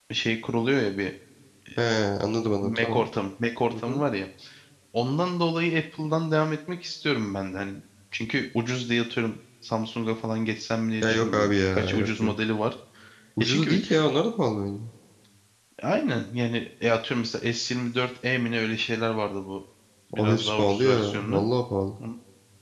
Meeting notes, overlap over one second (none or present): present